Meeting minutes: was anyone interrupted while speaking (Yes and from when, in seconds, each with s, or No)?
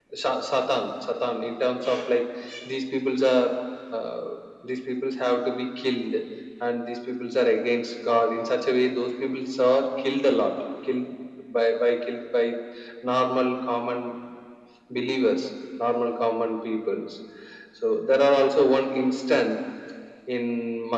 No